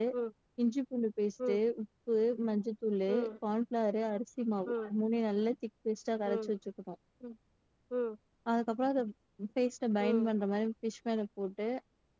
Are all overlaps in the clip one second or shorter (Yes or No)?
Yes